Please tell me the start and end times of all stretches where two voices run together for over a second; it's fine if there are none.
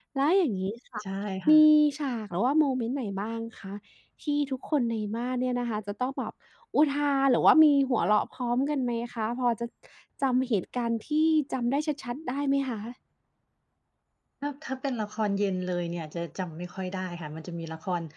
none

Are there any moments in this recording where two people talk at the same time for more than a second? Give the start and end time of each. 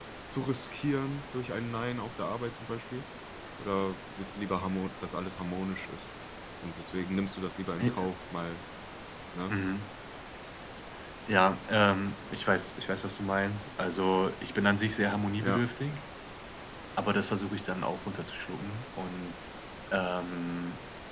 none

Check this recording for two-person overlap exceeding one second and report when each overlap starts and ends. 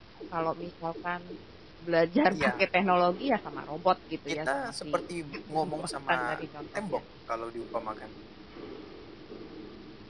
4.3-6.3

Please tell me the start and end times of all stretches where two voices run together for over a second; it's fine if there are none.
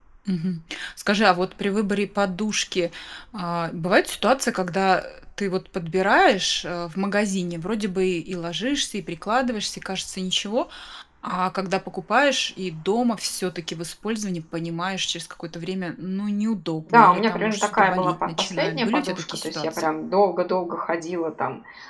16.9-19.9

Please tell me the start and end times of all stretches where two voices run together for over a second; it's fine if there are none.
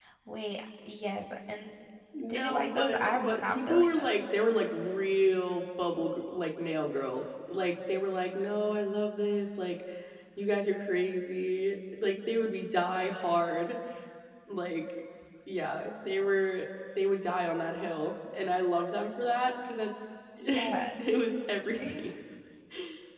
2.2-4.2

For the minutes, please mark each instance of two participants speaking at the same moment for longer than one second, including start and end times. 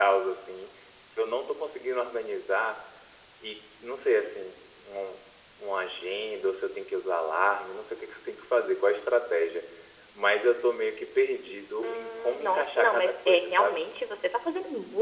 11.8-13.8

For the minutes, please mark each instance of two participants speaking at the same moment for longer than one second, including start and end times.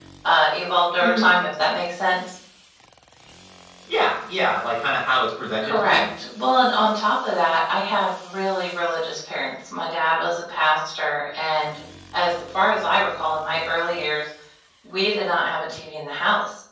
none

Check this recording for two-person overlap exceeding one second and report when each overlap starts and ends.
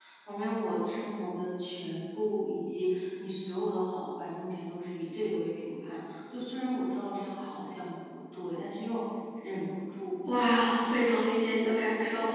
none

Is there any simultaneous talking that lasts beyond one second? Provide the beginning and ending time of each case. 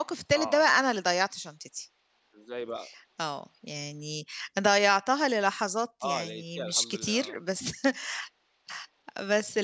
6.0-7.4

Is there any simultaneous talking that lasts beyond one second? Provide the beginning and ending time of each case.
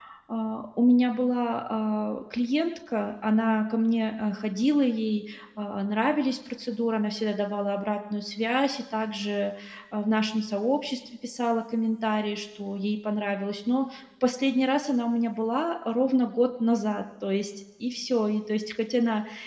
none

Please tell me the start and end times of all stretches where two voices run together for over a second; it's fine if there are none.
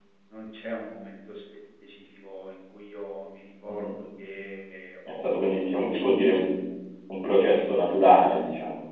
5.2-6.4

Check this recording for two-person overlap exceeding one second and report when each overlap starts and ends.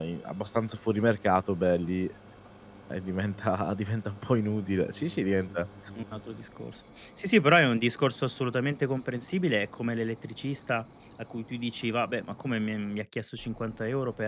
none

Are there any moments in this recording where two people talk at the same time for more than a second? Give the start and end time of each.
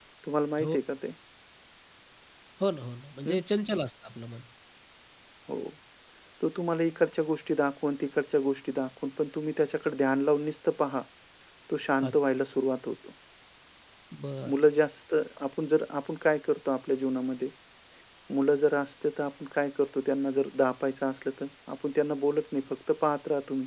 none

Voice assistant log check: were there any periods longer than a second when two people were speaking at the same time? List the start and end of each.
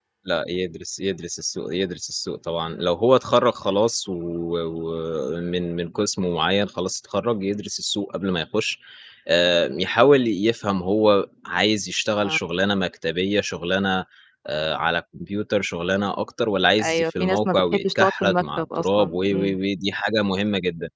16.8-19.6

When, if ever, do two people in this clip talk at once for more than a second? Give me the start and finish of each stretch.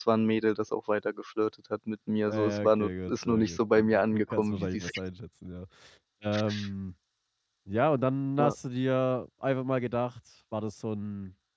2.3-4.9

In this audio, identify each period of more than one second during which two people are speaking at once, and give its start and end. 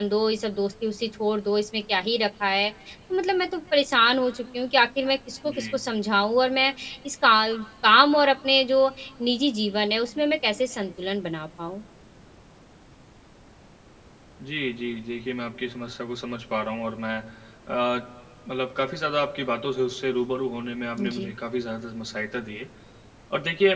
none

